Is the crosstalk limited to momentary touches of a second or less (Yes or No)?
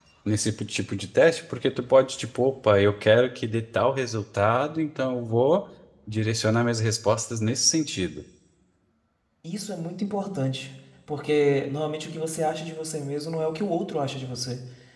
Yes